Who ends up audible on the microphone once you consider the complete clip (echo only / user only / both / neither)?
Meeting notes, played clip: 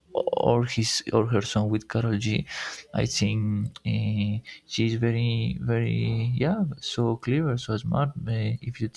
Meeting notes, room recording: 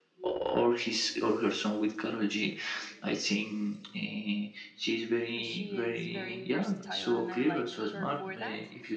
both